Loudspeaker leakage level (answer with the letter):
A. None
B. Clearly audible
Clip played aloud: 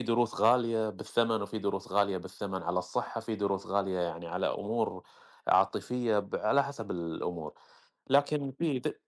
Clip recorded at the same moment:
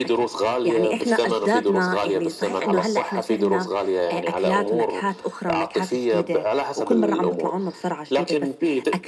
B